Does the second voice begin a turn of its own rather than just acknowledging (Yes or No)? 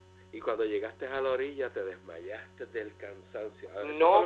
Yes